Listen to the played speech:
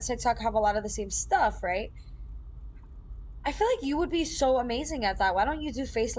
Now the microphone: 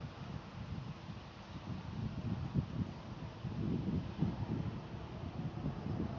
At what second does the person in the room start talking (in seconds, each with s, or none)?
none